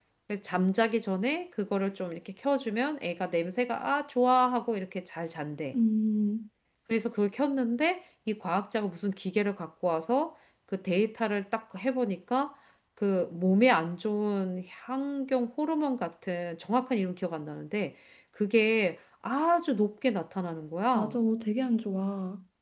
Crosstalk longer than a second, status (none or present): none